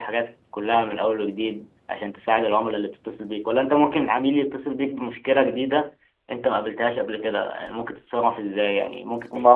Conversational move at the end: taking over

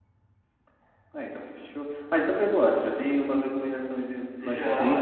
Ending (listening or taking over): taking over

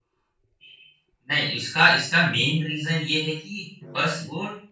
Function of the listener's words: listening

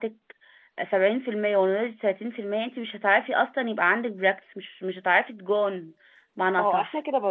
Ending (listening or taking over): taking over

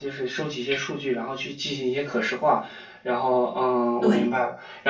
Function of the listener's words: listening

